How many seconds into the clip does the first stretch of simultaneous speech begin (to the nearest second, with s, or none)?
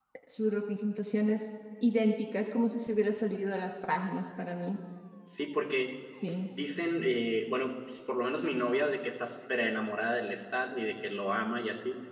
none